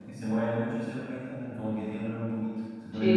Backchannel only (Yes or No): No